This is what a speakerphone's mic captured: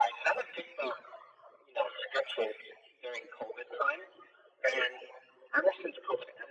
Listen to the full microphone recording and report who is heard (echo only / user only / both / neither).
echo only